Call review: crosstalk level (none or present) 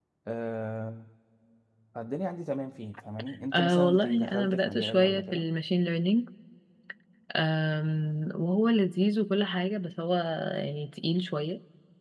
present